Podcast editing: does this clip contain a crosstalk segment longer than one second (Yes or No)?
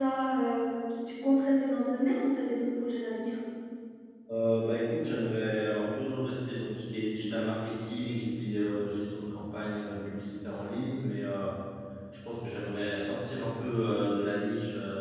No